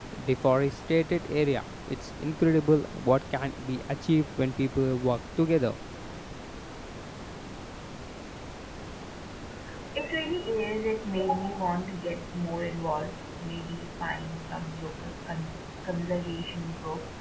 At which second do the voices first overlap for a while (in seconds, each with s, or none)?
none